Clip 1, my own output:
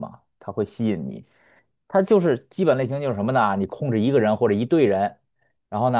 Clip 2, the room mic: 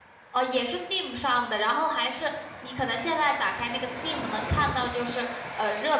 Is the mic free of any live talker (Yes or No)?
No